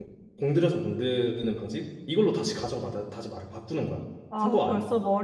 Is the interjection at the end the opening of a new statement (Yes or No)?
Yes